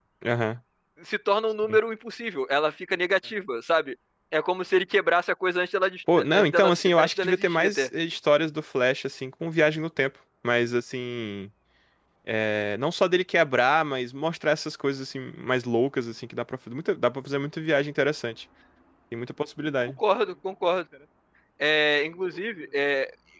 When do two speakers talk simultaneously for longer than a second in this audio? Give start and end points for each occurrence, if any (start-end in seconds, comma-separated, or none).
6.3-7.9